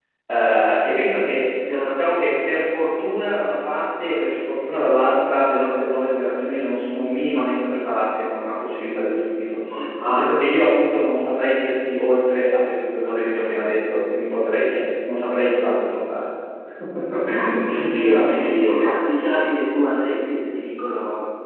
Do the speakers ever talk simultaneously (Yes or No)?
Yes